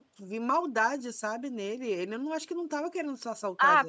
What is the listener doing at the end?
taking over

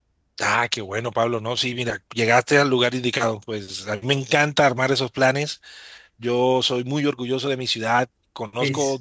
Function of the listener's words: listening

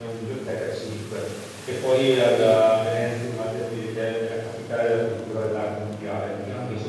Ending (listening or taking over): listening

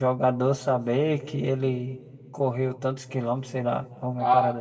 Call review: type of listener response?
taking over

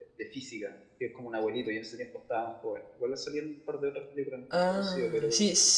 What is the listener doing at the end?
taking over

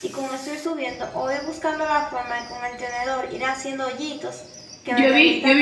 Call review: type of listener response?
taking over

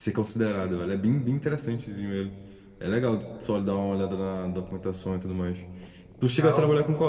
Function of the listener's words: listening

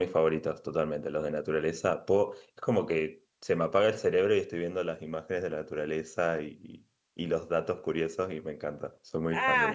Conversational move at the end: taking over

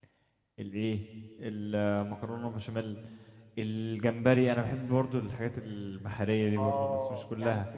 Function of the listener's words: taking over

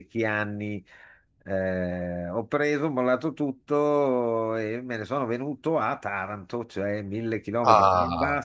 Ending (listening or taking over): listening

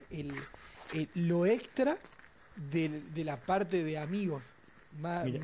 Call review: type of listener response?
listening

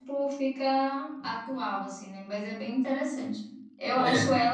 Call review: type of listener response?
listening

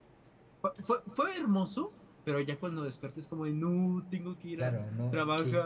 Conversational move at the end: taking over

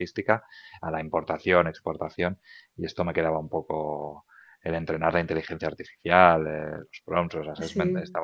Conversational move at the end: listening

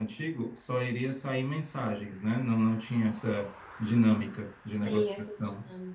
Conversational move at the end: taking over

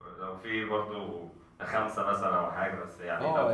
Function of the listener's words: taking over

